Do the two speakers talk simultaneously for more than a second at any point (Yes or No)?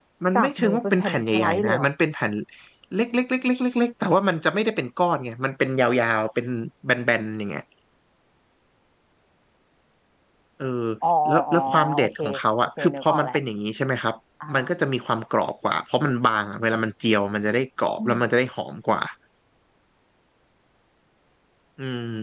Yes